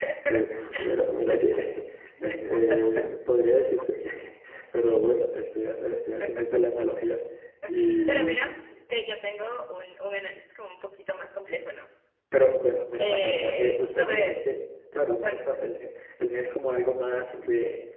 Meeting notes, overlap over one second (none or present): present